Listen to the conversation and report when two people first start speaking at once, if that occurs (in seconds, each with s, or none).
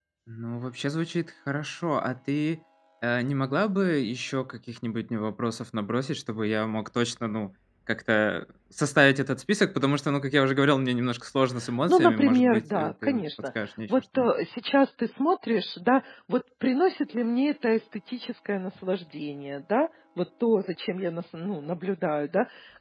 11.9 s